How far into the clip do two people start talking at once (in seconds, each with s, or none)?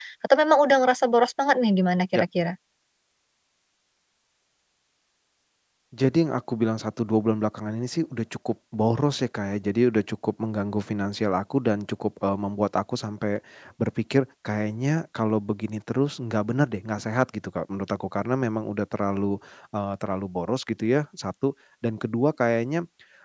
none